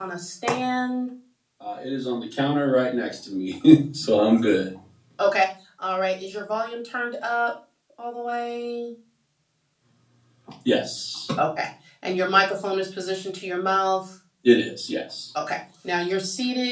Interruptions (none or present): none